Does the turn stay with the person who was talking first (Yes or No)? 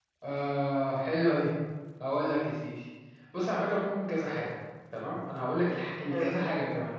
Yes